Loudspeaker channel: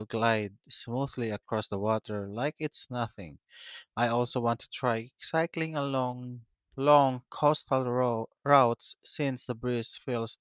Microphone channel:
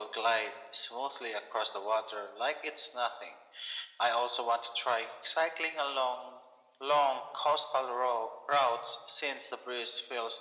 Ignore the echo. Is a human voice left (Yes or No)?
No